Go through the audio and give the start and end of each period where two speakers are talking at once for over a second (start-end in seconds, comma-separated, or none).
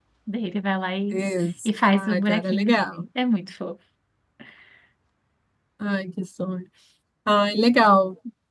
1.6-3.0